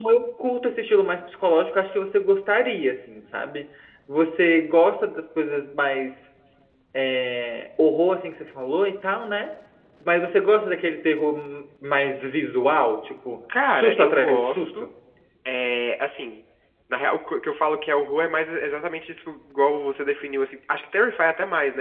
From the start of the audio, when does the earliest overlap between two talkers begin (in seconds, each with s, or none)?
13.5 s